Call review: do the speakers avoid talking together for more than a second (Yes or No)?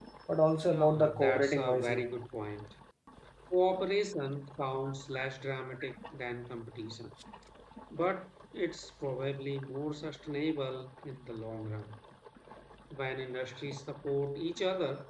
No